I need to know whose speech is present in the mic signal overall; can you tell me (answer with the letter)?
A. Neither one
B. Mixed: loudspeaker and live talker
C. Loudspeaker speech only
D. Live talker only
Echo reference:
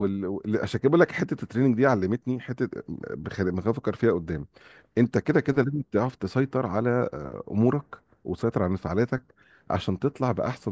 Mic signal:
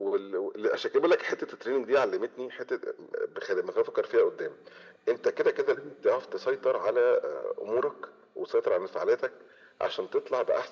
C